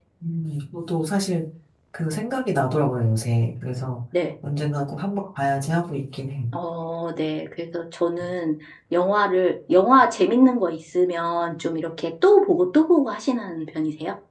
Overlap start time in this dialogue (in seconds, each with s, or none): none